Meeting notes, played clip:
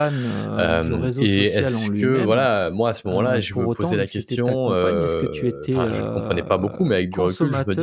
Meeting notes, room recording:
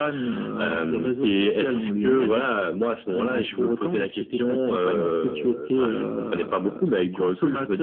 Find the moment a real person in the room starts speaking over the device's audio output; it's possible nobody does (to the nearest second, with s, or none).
none